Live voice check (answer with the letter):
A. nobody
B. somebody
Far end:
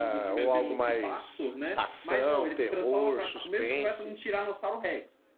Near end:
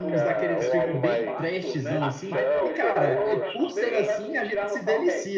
B